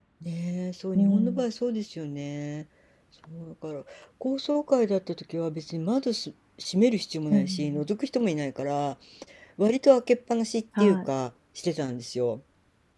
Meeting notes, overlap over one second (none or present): none